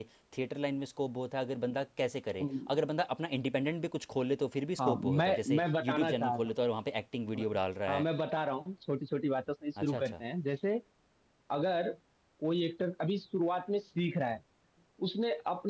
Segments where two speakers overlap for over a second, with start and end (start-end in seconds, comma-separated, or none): 4.8-6.5